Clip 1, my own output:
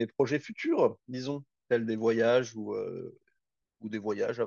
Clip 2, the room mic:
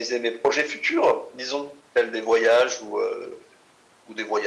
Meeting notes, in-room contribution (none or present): none